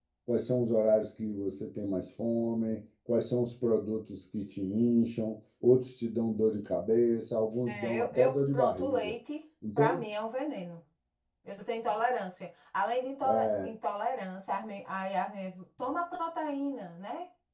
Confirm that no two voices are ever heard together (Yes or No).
No